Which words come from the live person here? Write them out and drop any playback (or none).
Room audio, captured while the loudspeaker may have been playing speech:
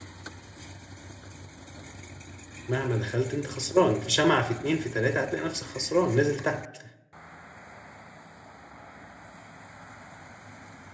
مهما دخلت انت خسران في شمعة في اتنين في تلاتة هتلاقي نفسك خسران نازل تحت